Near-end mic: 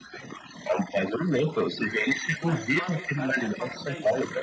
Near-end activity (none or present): present